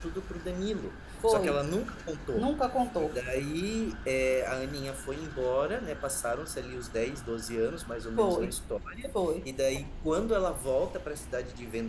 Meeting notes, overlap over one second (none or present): none